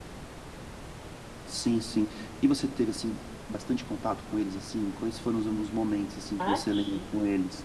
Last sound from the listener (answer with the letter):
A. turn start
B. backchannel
A